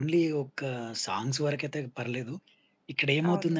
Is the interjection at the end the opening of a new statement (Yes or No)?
No